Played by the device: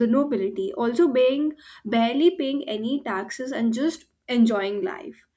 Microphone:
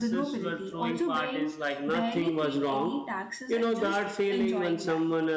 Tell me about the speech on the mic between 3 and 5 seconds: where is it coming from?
both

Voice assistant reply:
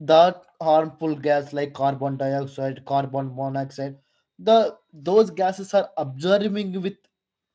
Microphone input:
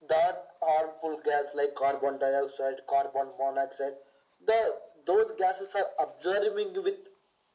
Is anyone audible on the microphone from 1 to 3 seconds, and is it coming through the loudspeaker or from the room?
echo only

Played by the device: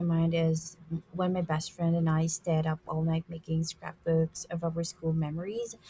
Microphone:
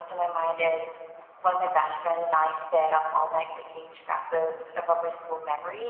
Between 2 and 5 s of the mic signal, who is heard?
echo only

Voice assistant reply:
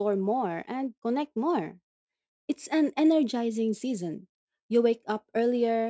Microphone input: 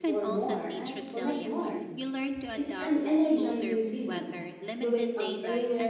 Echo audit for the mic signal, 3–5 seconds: both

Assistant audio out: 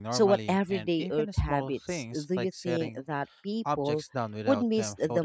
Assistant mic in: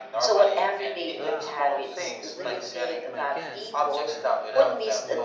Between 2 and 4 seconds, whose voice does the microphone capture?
both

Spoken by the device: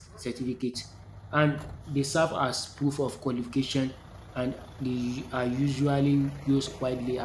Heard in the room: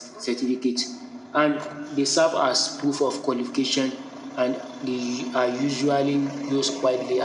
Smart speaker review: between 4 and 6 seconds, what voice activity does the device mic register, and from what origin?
echo only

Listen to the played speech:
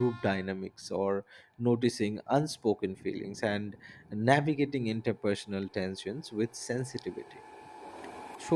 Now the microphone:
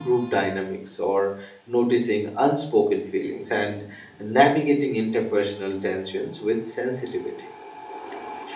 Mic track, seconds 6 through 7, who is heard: echo only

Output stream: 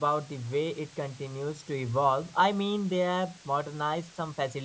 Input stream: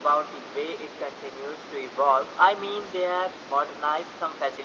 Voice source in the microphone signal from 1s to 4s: echo only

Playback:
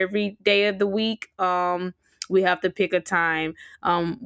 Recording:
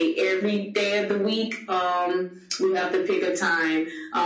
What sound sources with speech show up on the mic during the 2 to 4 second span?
echo only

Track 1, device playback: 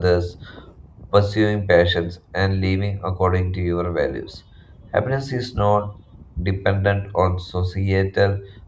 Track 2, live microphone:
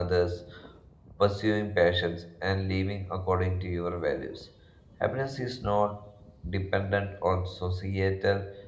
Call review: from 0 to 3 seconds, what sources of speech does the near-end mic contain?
echo only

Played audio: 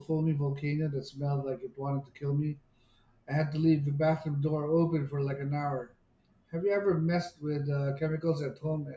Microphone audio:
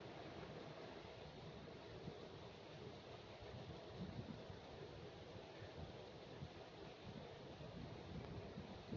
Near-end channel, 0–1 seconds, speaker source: neither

